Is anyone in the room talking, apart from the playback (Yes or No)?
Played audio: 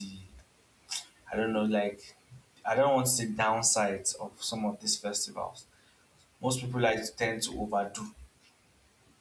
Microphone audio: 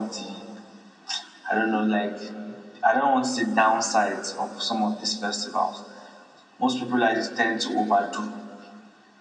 No